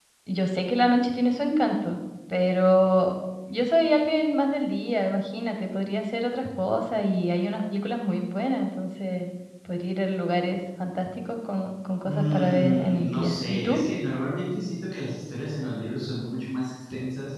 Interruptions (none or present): present